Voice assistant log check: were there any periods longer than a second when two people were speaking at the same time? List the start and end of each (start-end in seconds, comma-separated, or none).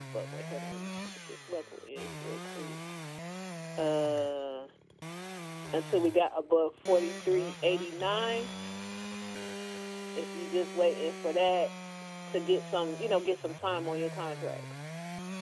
none